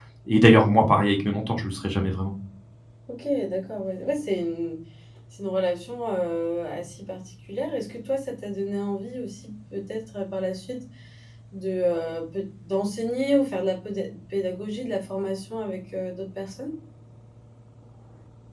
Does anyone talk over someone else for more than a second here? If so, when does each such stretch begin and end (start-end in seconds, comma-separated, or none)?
none